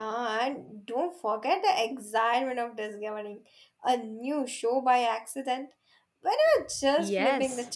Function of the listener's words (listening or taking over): taking over